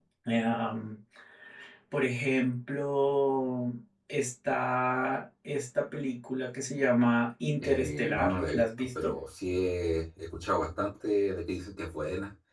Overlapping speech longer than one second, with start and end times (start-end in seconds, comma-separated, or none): 7.6-9.1